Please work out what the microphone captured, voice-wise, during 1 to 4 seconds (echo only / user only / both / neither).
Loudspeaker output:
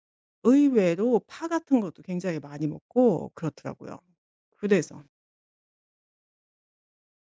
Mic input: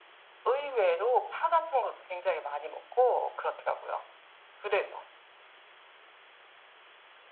echo only